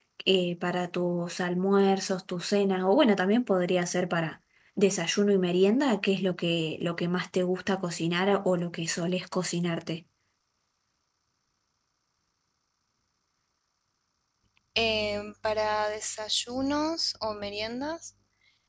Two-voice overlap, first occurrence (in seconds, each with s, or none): none